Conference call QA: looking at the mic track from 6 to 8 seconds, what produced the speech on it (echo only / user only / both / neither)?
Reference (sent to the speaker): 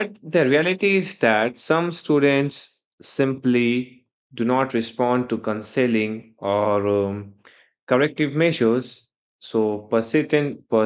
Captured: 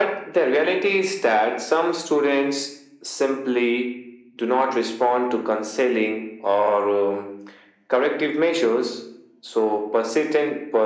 echo only